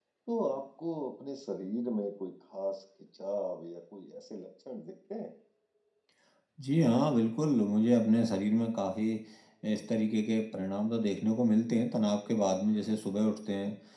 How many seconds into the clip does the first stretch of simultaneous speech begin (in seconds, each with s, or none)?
none